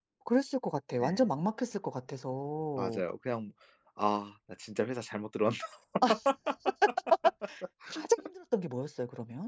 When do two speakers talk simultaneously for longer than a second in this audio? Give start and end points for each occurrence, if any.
none

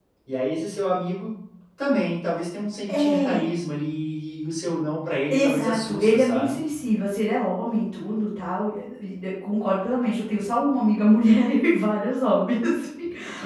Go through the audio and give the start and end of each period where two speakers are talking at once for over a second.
5.3-6.6

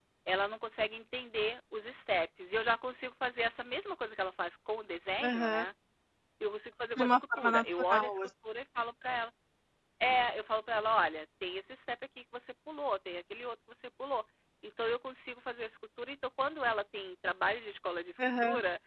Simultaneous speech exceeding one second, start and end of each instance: 7.0-8.2

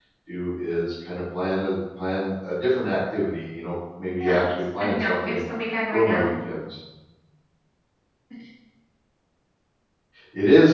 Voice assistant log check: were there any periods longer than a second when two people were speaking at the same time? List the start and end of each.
4.2-5.4

